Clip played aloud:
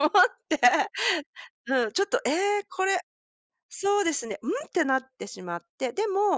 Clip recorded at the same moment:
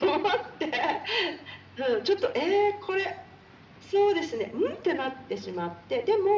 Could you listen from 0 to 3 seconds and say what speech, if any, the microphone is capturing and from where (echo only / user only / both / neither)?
echo only